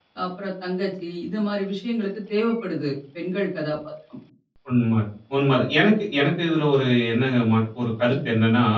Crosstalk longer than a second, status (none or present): none